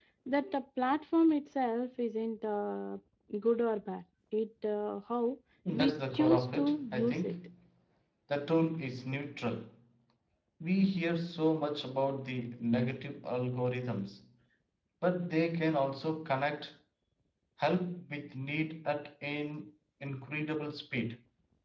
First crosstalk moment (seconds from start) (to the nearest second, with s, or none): 6 s